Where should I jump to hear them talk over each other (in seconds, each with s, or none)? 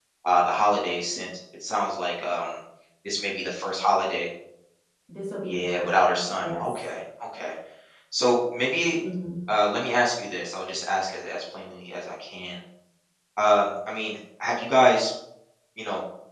5.5 s